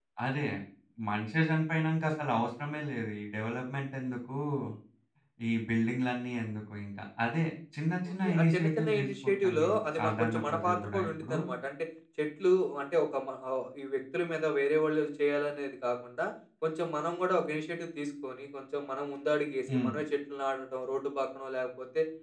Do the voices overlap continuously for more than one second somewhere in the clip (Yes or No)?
Yes